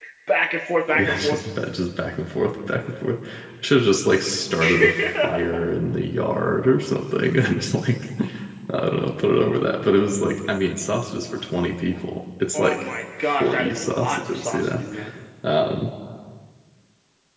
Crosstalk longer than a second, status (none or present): present